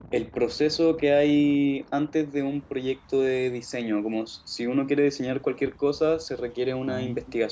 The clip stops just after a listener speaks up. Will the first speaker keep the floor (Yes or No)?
Yes